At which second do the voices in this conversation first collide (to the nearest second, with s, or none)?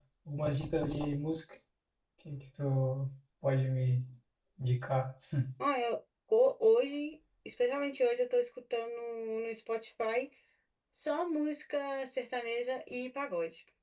none